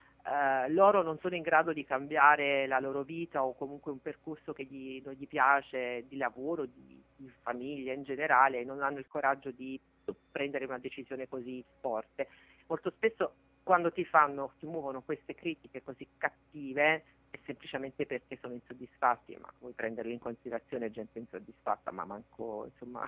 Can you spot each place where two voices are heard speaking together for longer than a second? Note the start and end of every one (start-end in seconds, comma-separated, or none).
none